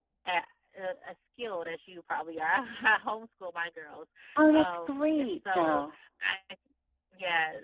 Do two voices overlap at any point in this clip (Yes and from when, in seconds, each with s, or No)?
Yes, from 4.5 s